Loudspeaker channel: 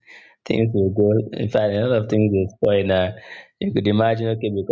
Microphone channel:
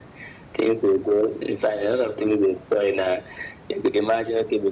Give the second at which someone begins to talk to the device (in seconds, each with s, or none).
none